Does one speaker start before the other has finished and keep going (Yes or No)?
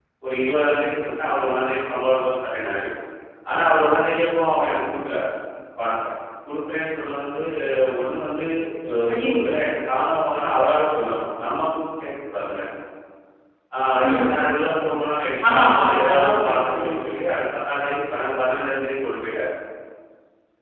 Yes